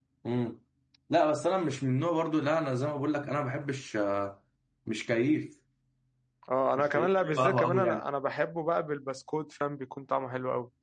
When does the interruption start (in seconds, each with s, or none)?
6.8 s